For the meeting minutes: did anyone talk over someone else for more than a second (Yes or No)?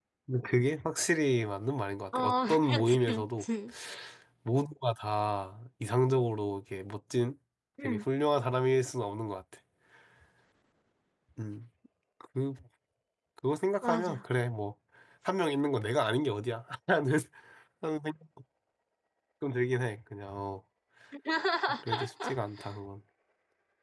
Yes